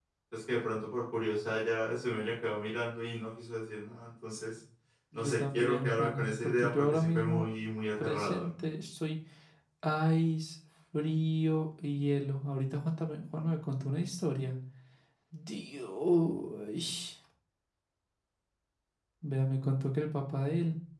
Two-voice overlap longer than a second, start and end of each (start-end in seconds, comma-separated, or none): 5.1-7.4